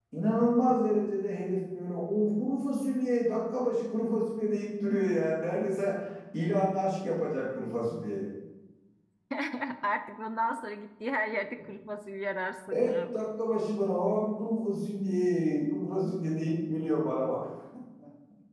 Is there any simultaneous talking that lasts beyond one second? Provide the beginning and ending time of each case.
none

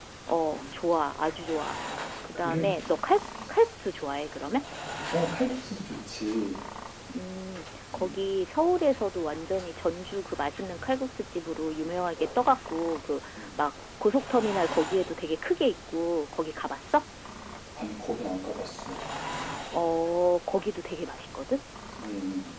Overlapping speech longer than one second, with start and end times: none

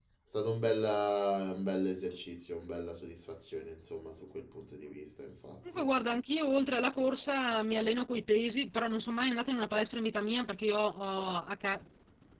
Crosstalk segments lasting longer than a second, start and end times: none

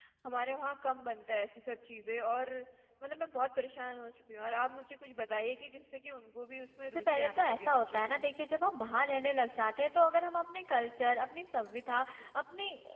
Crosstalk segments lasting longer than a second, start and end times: 6.9-8.2

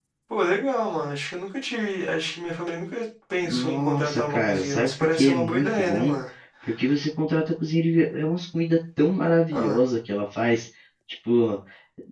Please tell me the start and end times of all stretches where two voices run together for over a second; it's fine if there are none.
3.4-6.1

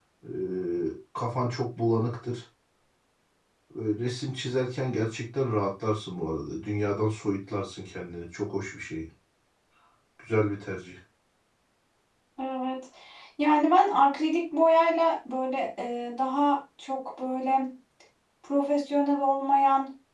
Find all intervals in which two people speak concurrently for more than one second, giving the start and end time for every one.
none

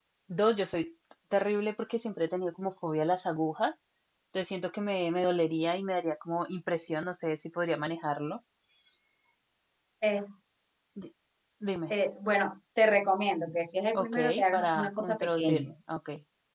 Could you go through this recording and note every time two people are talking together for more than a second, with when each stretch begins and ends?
13.9-15.7

